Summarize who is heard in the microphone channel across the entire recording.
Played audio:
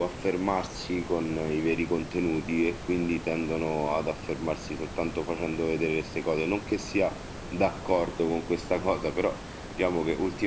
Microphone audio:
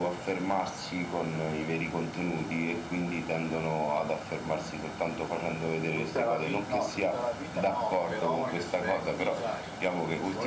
both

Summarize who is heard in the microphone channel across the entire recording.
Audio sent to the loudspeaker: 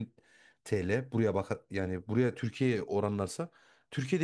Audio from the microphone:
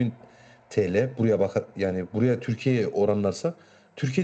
echo only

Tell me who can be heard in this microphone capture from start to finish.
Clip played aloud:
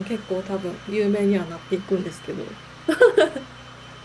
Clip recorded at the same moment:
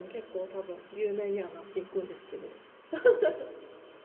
echo only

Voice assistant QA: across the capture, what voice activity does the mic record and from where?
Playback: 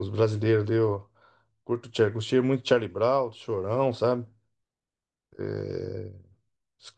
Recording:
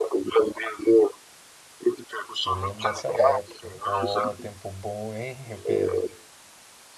both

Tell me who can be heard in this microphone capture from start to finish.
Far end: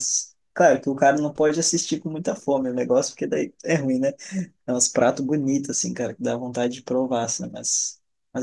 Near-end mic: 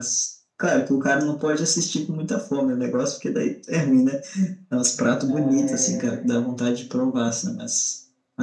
both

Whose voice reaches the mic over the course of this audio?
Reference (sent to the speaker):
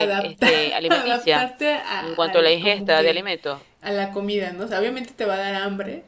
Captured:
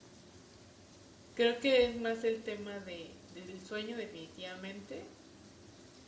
user only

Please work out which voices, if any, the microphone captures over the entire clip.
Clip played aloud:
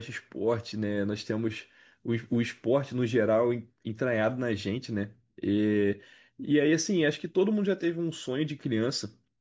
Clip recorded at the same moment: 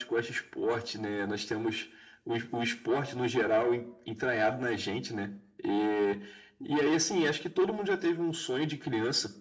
echo only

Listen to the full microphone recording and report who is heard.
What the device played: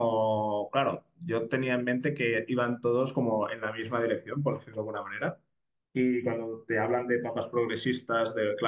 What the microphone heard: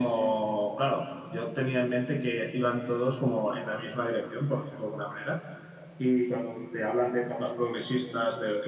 echo only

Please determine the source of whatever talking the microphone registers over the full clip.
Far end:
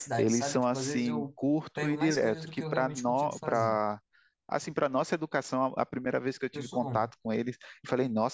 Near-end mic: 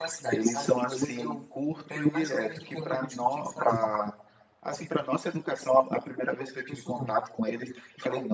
echo only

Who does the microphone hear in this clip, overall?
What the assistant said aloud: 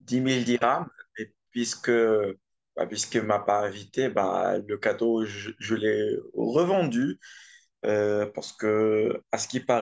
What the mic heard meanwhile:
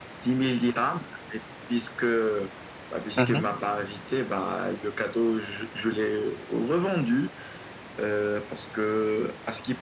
both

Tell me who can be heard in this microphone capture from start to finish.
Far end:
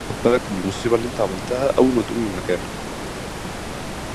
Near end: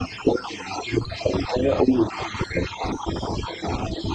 echo only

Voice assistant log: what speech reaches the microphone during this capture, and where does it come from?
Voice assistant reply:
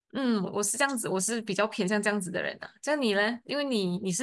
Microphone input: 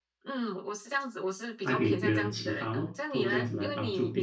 both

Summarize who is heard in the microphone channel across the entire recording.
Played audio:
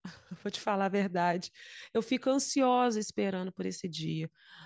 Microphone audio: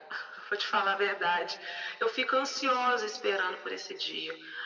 echo only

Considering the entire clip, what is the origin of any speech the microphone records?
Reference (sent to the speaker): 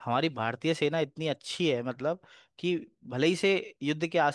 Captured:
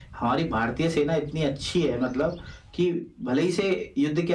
echo only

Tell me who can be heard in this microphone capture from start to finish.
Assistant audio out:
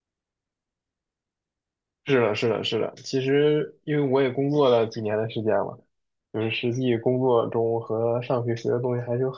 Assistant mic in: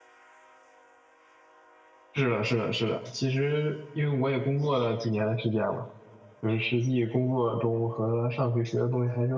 echo only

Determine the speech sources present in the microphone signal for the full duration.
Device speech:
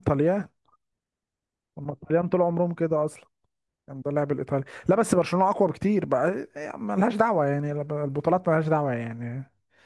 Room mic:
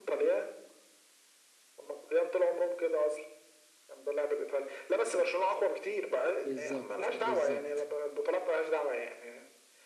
both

